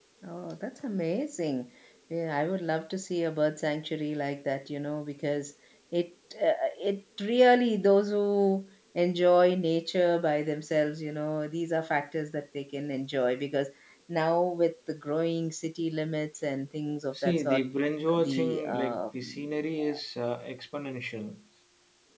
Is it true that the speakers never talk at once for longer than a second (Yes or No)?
No